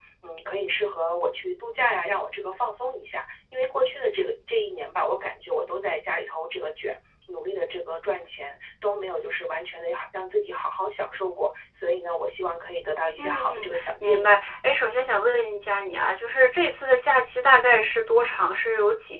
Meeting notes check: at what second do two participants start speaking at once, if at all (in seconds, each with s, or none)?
13.2 s